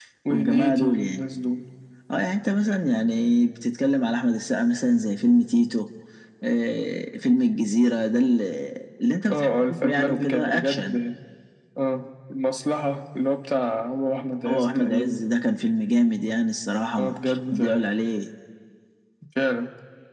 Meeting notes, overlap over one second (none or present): present